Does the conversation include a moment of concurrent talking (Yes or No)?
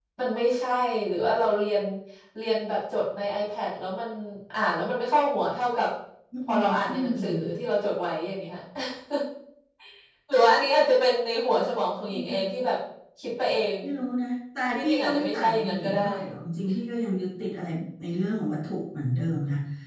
Yes